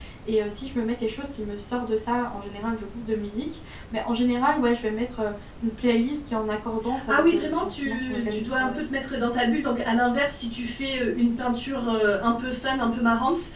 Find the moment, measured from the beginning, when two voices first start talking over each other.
7 s

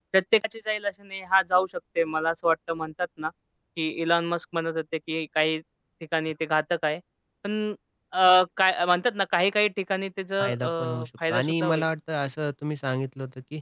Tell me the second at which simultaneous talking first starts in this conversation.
10 s

